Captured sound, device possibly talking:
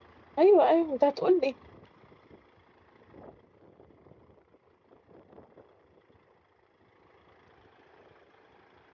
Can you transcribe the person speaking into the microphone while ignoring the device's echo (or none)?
ايوه ايوه انت هتقول لي